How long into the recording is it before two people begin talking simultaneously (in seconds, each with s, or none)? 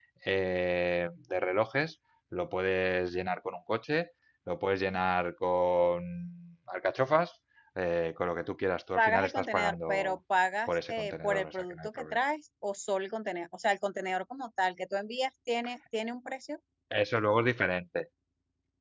9.0 s